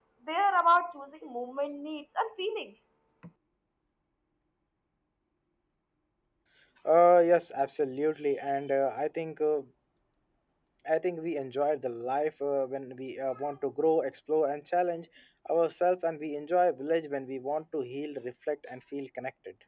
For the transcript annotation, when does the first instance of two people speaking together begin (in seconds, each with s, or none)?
none